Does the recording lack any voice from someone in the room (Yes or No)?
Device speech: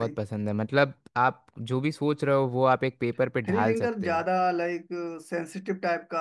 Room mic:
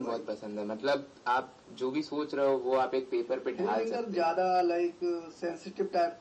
Yes